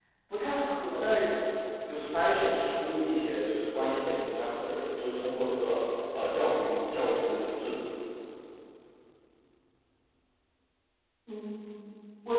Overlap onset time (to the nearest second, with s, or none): none